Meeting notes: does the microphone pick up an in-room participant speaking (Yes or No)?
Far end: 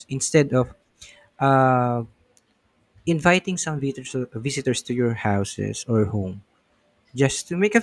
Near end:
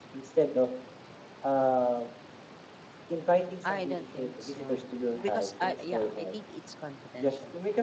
Yes